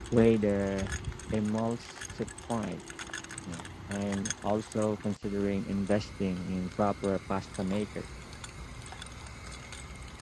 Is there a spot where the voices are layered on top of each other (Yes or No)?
No